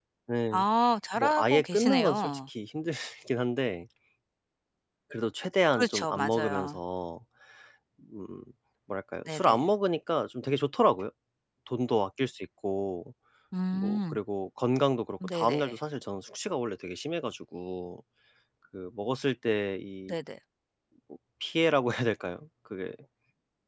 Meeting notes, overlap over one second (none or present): present